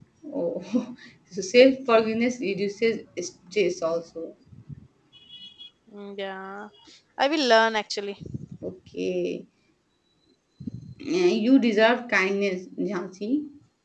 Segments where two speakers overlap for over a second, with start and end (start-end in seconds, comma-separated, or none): none